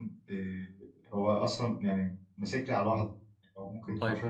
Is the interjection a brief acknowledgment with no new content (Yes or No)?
No